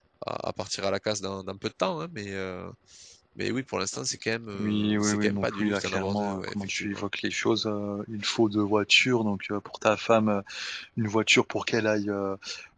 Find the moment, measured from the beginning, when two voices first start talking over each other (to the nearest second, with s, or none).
5 s